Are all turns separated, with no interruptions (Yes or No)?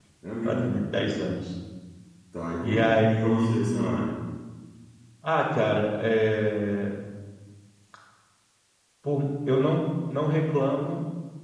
No